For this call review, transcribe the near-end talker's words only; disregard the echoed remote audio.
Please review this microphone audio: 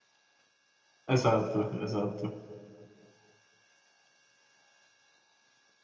Esatto, esatto.

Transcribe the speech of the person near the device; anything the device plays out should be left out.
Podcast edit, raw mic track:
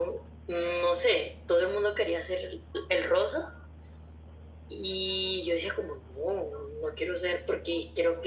none

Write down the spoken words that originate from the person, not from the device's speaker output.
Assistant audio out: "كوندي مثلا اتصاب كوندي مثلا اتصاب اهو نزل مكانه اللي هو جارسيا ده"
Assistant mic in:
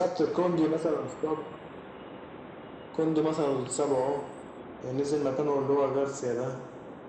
none

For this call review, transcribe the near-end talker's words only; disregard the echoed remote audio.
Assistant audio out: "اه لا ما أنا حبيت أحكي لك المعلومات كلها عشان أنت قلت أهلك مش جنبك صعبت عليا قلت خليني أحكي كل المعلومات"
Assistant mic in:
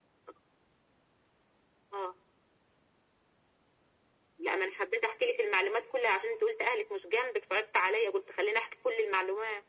none

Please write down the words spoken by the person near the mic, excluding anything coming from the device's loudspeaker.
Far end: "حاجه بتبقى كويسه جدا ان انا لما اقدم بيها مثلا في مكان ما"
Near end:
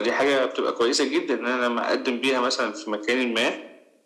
none

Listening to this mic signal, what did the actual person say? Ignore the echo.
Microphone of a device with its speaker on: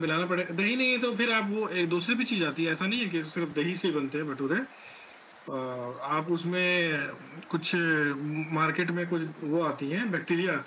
none

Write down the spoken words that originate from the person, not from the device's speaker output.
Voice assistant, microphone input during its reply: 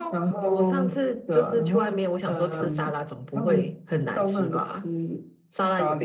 none

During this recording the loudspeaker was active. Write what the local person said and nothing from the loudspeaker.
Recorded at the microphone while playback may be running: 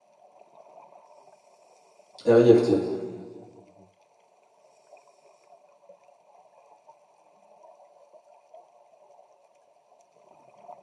R-I-F-T.

